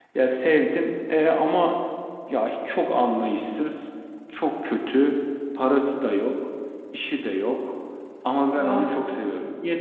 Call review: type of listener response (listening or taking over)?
listening